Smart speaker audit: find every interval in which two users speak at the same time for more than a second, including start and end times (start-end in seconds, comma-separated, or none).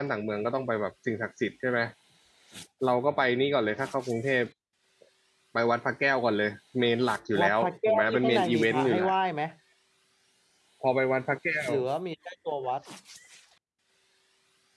7.4-9.1